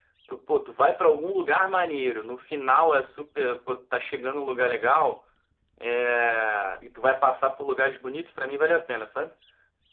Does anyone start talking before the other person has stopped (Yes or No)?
No